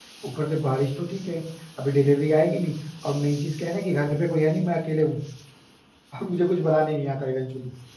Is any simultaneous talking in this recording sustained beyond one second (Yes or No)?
No